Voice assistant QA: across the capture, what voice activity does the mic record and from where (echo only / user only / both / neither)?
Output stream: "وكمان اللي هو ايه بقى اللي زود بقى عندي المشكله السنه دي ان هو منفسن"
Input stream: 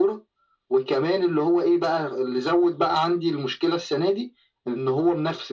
echo only